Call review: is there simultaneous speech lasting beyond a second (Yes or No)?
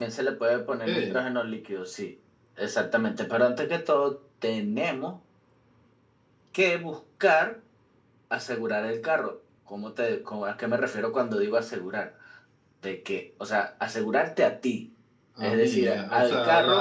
Yes